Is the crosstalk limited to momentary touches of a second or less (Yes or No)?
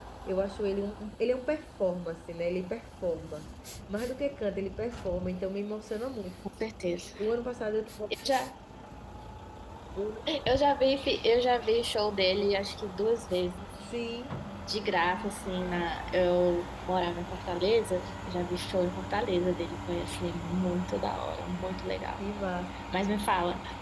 Yes